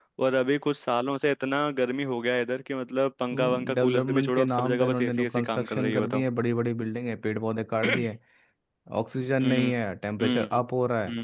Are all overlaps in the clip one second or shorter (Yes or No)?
No